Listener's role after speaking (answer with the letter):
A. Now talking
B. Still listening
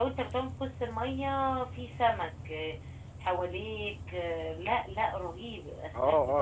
A